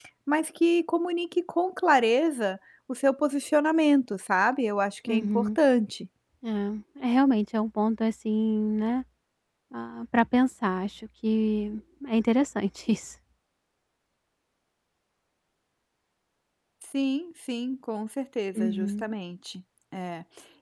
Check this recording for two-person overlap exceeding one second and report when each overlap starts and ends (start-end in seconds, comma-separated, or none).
none